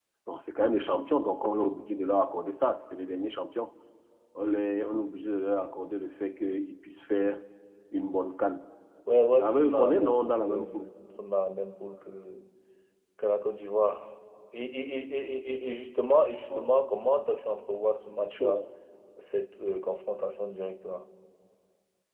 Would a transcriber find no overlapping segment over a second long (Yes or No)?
No